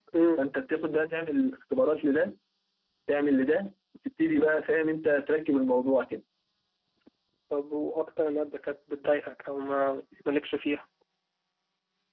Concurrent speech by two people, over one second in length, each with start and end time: none

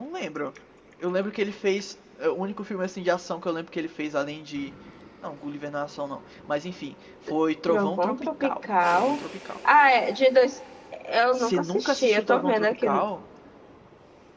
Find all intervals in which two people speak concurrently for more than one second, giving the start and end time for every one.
7.7-9.2, 11.3-12.9

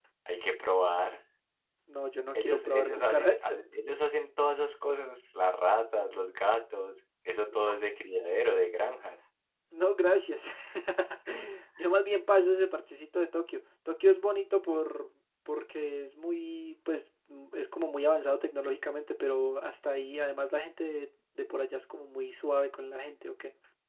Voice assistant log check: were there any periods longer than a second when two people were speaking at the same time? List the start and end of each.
2.4-3.6

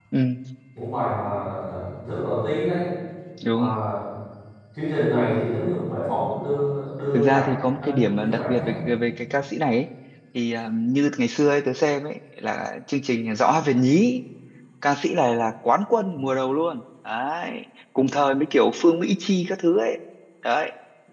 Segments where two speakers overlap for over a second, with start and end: 7.1-8.8

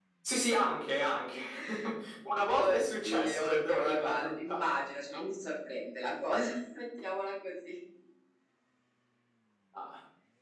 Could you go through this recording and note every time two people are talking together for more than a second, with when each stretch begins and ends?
2.5-4.6

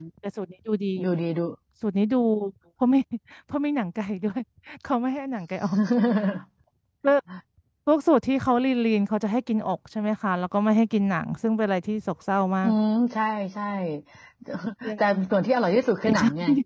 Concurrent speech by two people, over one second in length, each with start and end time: none

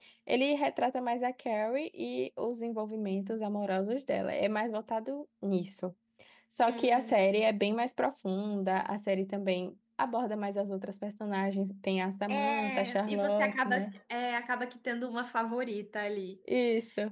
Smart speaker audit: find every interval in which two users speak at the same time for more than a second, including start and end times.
12.3-13.9

